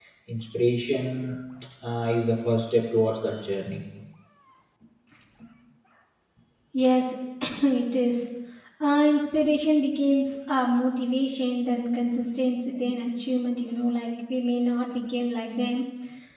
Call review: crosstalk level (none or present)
none